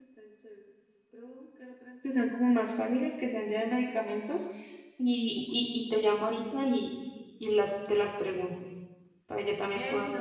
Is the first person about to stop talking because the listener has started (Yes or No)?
Yes